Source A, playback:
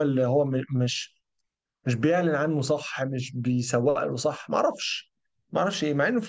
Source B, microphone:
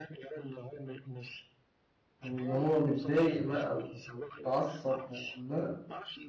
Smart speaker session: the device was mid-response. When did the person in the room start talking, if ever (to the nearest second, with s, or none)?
2 s